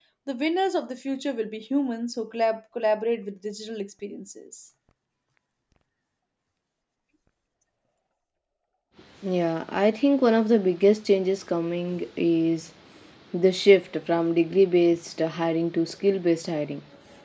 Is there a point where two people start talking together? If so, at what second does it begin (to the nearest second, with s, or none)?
none